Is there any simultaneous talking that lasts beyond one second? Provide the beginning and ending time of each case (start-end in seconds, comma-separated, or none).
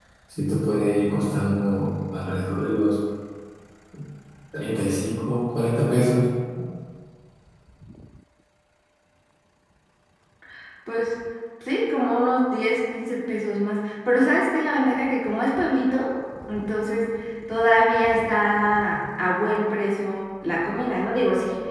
none